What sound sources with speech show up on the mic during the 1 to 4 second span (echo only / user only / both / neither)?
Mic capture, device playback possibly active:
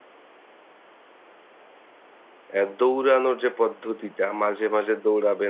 user only